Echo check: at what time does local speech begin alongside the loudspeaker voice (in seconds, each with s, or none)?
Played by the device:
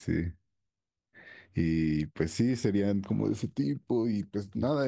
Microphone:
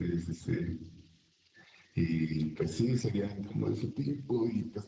none